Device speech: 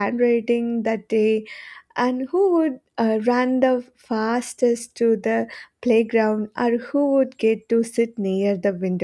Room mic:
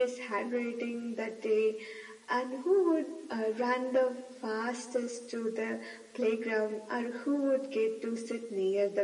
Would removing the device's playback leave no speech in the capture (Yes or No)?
Yes